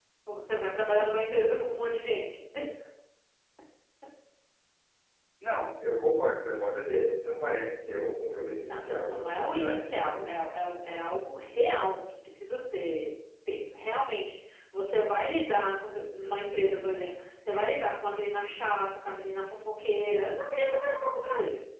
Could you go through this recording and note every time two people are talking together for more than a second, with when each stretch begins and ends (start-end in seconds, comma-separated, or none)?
8.6-10.4